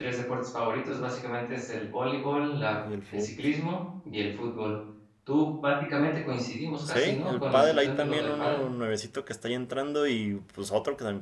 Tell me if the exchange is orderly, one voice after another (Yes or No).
No